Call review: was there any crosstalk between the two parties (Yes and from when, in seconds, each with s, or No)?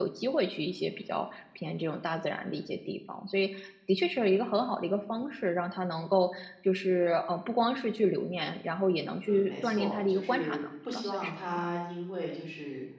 Yes, from 9.2 s